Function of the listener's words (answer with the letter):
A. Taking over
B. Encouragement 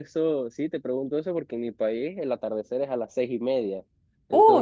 A